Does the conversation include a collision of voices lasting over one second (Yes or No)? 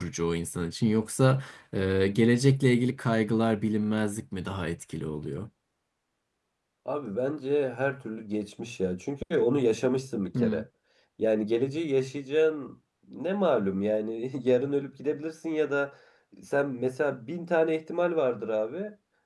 No